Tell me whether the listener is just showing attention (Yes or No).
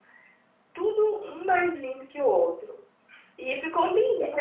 Yes